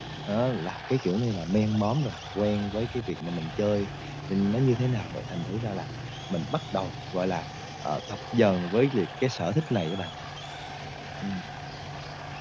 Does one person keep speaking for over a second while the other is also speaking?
No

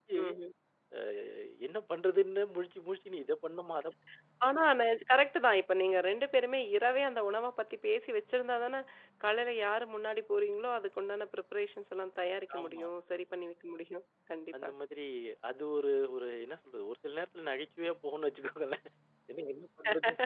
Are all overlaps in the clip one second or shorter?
Yes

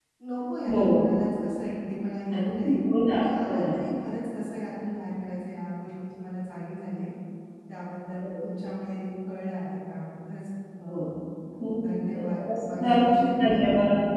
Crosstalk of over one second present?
Yes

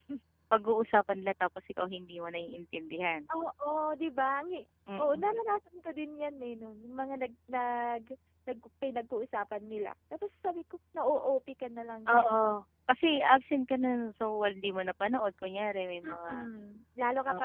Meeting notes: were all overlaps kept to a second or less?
Yes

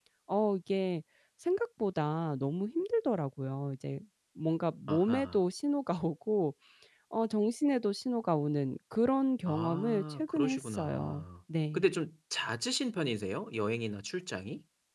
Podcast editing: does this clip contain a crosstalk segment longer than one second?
Yes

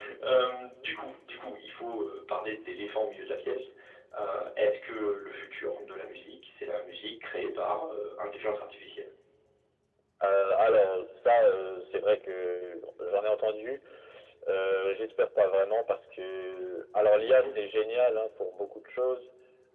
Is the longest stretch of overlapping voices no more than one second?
Yes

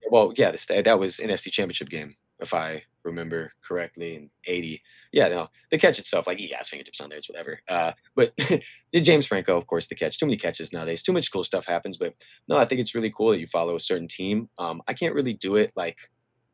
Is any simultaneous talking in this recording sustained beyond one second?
No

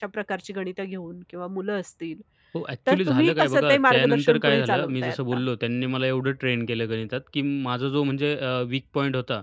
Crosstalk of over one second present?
Yes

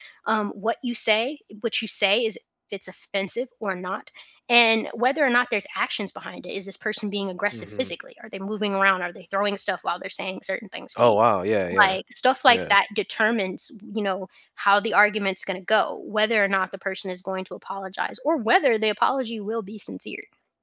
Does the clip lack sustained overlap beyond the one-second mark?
Yes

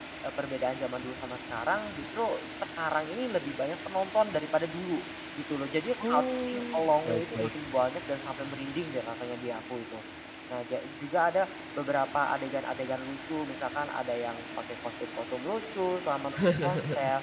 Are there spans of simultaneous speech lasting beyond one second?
Yes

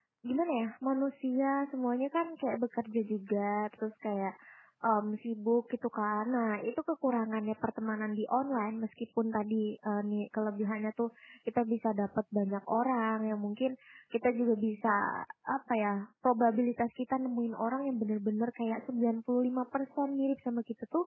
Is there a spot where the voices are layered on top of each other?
No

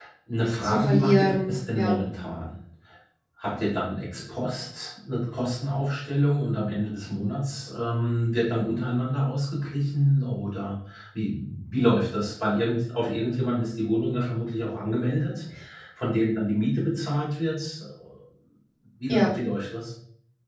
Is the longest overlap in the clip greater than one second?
Yes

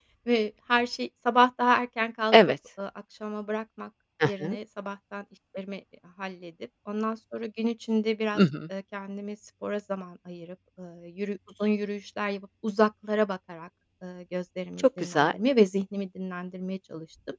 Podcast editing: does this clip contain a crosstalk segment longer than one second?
No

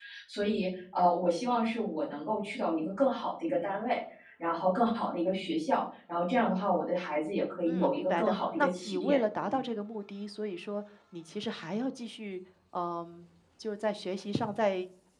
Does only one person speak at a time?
No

